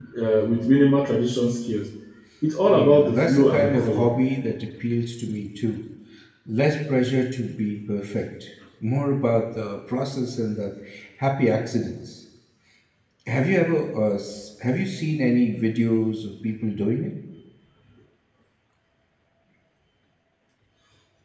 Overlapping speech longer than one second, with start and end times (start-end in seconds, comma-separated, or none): 2.7-4.1